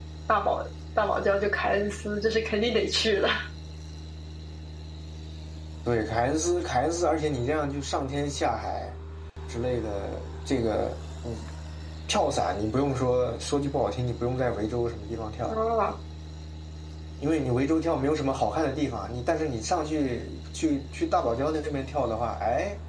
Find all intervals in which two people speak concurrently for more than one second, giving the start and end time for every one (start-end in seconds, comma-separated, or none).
none